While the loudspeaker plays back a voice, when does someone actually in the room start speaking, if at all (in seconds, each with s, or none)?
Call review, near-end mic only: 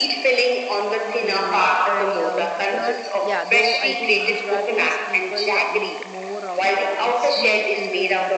1.2 s